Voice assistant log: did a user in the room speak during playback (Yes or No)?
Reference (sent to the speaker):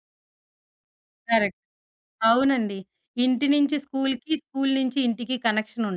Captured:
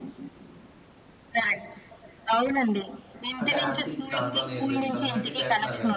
Yes